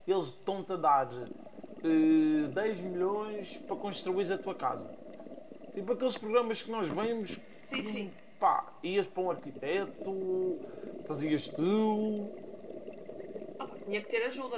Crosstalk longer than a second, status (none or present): none